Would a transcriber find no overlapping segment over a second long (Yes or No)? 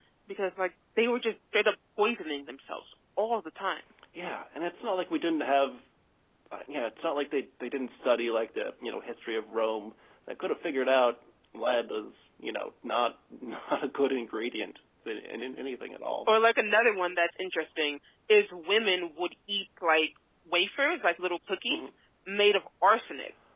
Yes